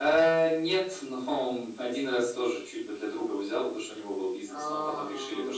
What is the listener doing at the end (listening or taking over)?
listening